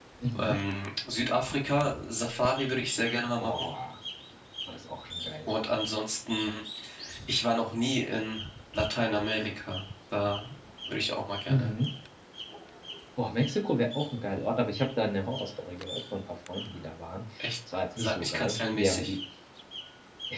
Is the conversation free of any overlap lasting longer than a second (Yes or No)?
No